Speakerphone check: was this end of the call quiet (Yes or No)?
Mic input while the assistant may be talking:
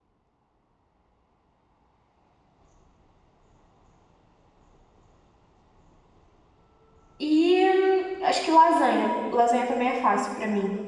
No